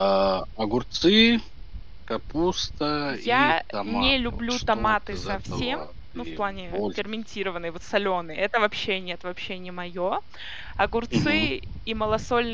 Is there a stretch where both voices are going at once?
Yes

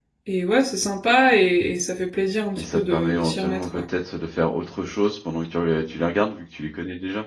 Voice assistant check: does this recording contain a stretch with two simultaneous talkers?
Yes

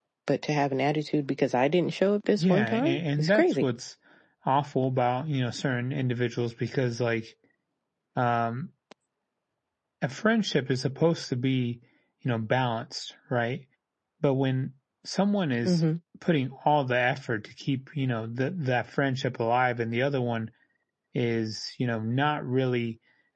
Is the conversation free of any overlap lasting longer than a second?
No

